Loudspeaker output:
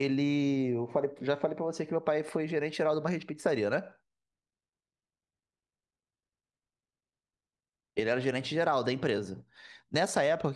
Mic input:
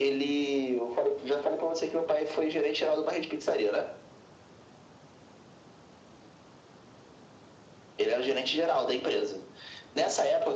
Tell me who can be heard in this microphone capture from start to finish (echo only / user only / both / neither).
echo only